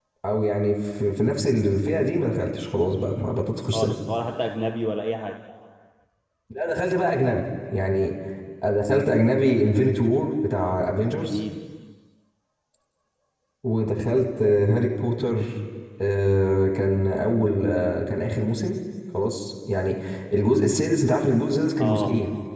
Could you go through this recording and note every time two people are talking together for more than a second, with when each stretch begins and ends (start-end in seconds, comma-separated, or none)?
none